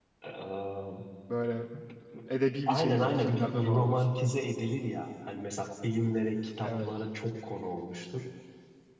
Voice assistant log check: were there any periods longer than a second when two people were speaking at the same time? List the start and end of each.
2.7-4.0

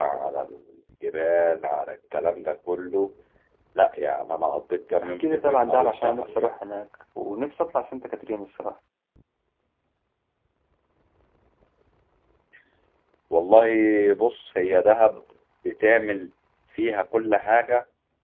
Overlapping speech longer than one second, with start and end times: 5.0-6.5

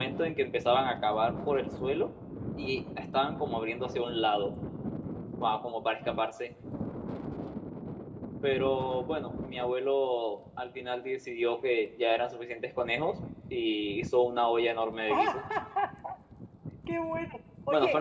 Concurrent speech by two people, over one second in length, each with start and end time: none

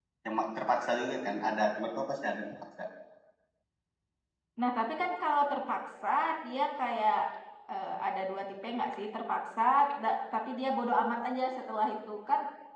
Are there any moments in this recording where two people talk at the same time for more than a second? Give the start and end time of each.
none

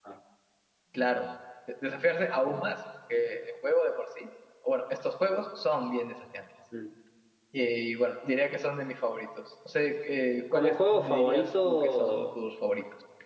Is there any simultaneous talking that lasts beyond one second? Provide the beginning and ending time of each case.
10.5-12.4

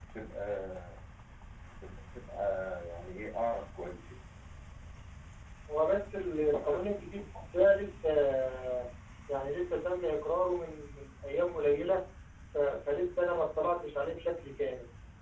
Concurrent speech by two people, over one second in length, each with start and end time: none

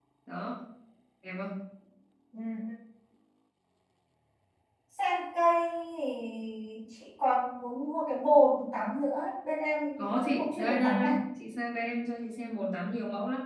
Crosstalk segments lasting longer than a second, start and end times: 10.0-11.2

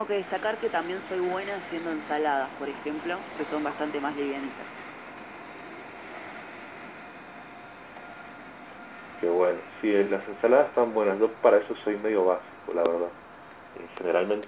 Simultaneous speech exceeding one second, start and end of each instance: none

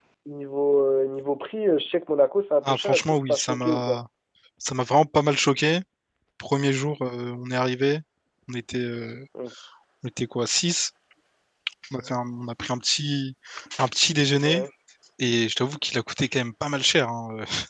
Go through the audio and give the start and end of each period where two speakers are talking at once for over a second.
2.6-4.0

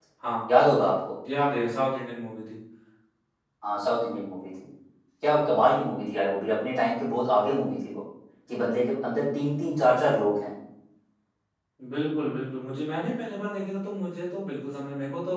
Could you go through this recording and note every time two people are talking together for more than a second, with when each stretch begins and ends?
none

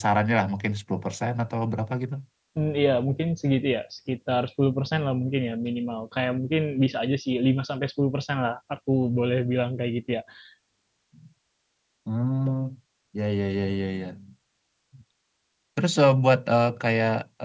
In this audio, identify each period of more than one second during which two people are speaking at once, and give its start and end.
none

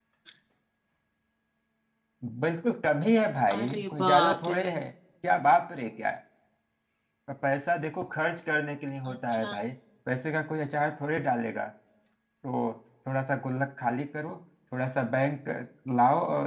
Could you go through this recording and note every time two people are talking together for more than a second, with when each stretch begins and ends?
3.6-4.8

